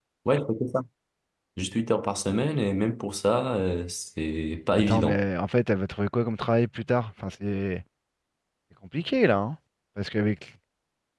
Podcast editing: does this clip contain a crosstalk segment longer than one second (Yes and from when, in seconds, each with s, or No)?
No